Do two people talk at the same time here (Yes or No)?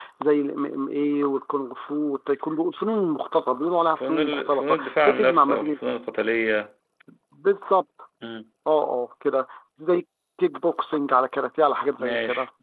Yes